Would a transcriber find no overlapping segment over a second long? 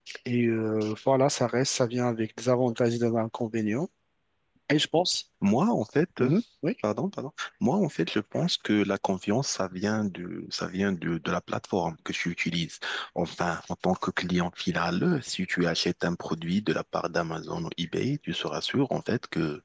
Yes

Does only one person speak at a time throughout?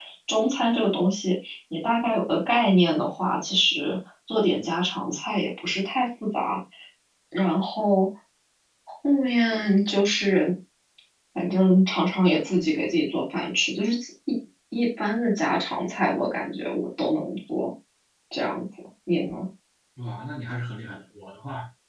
Yes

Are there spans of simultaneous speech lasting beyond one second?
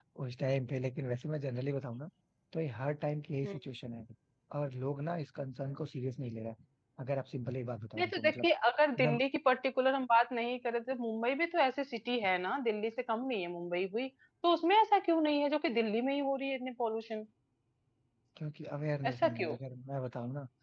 No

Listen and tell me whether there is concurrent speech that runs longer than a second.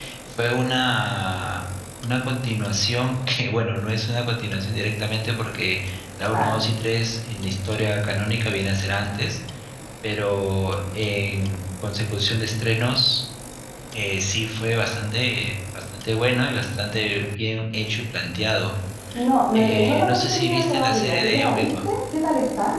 Yes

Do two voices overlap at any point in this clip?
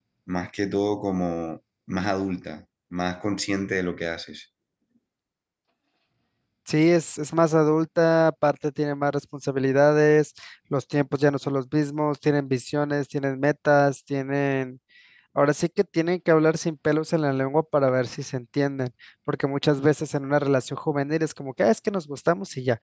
No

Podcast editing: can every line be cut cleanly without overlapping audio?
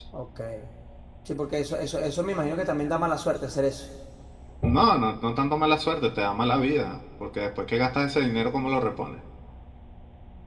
Yes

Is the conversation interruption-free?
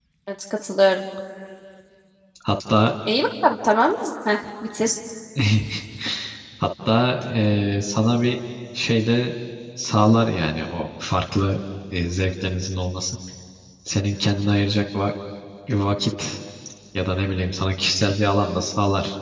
Yes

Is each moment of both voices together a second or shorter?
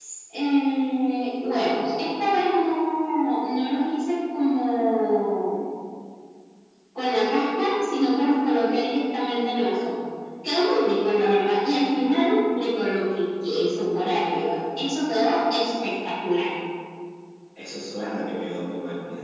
Yes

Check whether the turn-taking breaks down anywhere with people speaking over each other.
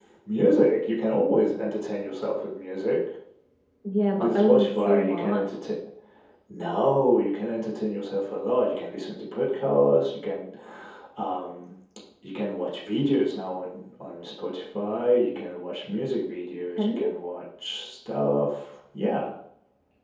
Yes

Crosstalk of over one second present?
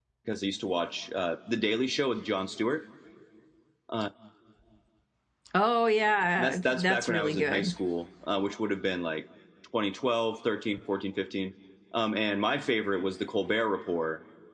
Yes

